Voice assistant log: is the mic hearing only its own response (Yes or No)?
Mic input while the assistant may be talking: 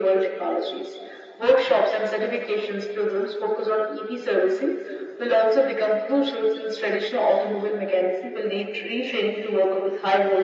Yes